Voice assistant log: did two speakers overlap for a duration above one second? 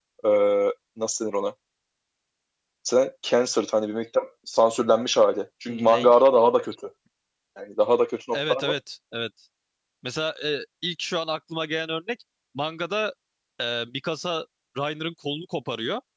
No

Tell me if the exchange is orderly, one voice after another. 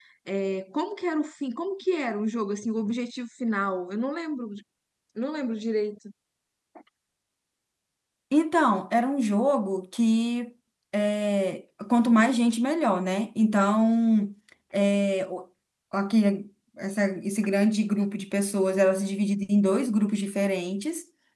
Yes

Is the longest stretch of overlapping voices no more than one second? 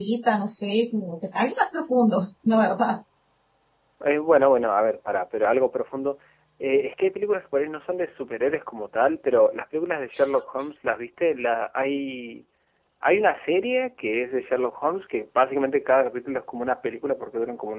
Yes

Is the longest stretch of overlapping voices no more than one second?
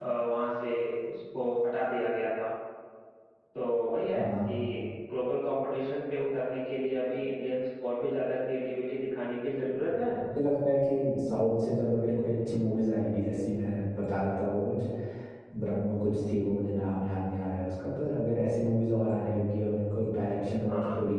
Yes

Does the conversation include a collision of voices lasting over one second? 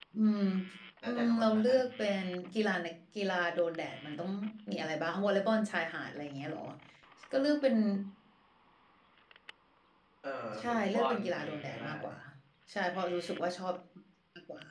Yes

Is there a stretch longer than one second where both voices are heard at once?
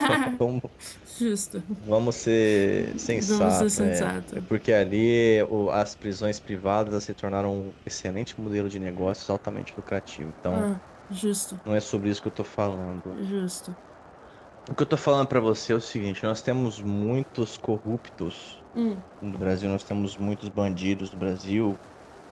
Yes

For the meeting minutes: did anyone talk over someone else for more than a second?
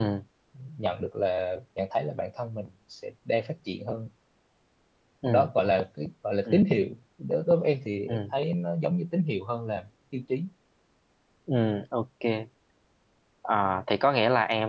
No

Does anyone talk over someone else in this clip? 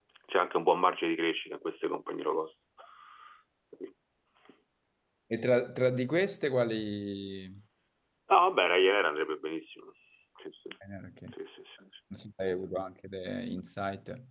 No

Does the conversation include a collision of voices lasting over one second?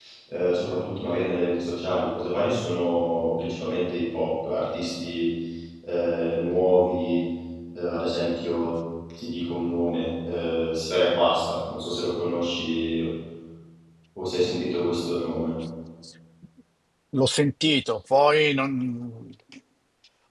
No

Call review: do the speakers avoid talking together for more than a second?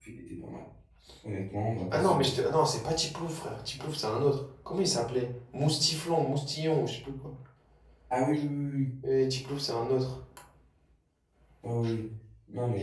Yes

